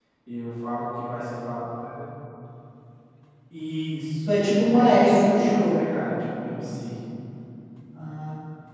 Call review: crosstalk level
present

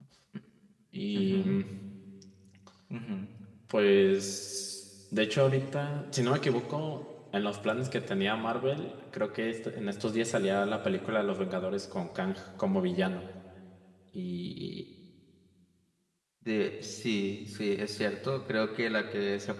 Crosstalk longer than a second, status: none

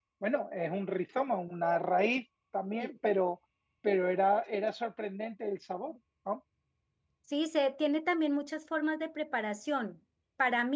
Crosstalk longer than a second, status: none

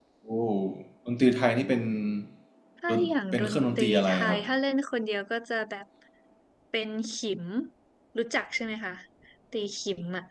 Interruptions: present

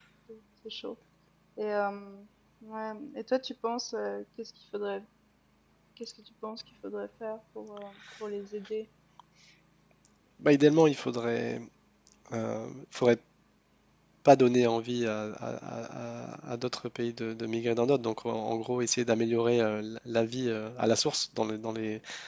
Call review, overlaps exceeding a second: none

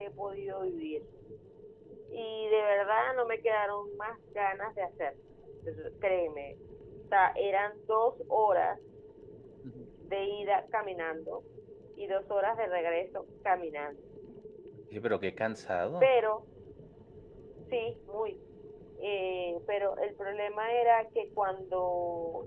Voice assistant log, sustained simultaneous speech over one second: none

